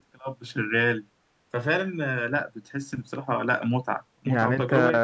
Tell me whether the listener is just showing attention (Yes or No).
No